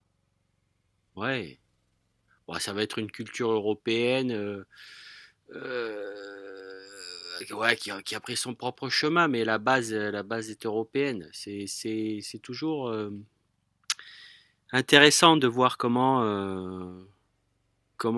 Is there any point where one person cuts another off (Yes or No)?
No